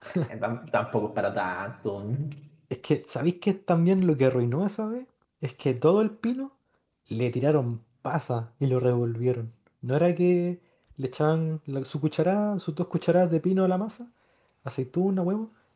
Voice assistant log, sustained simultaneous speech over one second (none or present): none